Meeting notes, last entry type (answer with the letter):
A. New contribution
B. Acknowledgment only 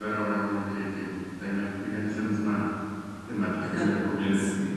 A